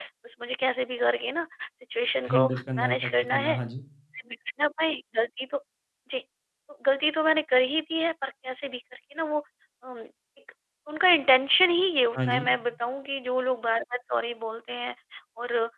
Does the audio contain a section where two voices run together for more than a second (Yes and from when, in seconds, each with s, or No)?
Yes, from 2.3 s